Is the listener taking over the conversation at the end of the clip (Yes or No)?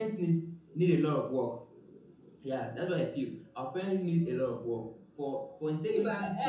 Yes